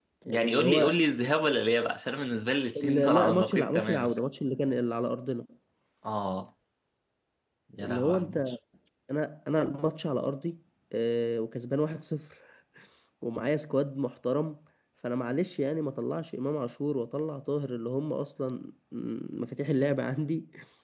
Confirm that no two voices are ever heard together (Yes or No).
No